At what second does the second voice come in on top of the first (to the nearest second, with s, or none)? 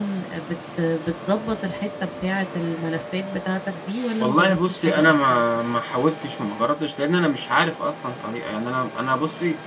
4 s